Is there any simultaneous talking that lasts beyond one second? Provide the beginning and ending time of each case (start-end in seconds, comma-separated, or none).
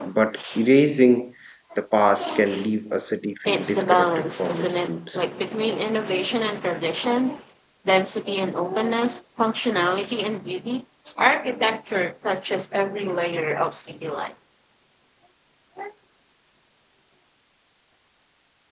3.5-5.2